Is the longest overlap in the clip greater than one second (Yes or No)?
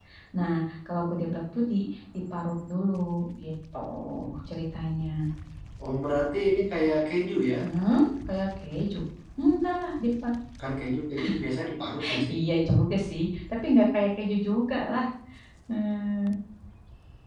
No